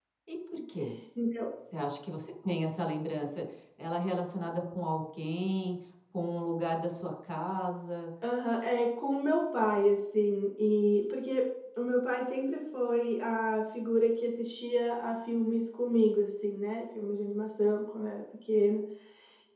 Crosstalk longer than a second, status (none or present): none